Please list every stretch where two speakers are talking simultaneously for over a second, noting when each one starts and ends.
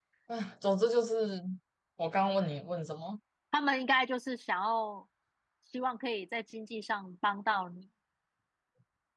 none

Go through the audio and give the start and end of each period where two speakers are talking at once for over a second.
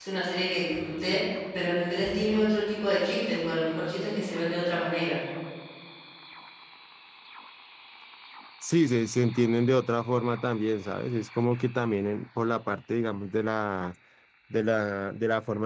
none

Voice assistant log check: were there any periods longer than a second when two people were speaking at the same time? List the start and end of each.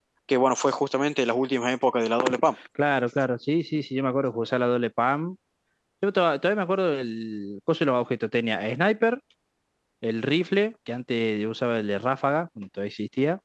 none

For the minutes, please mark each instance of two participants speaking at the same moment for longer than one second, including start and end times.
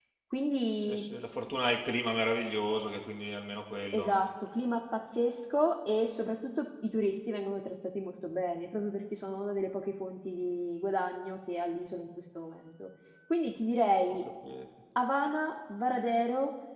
none

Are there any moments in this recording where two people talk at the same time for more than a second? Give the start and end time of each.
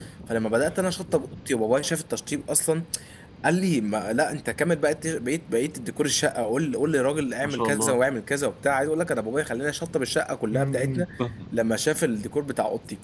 none

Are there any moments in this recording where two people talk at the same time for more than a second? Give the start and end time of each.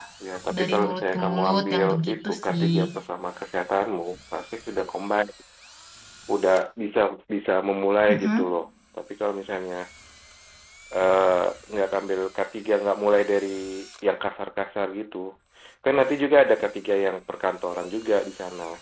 0.6-2.7

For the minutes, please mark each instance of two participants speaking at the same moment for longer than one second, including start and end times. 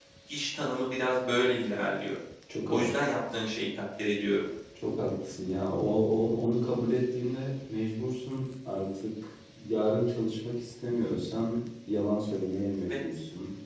none

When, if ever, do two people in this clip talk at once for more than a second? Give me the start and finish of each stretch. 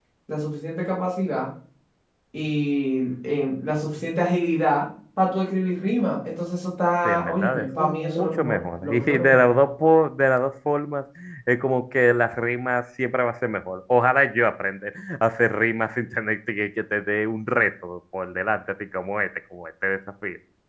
7.0-9.5

